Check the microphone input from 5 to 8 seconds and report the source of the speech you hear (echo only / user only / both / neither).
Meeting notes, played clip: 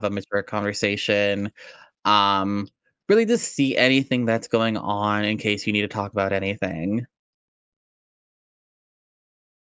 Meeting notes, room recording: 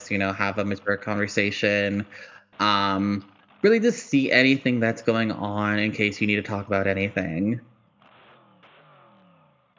echo only